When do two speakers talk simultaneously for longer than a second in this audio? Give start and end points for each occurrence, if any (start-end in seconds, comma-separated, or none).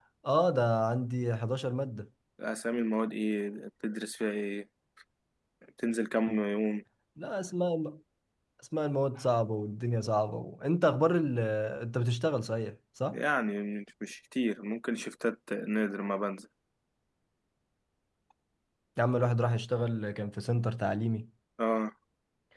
none